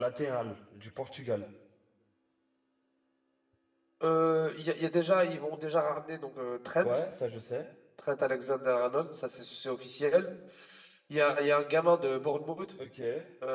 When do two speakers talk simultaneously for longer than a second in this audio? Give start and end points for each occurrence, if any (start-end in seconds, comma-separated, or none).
none